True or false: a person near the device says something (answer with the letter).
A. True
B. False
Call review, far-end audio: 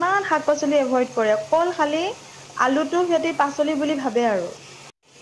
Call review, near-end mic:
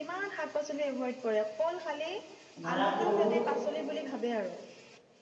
A